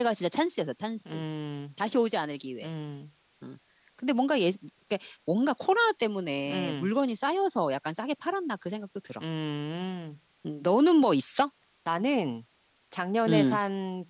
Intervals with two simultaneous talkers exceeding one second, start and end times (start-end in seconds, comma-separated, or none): none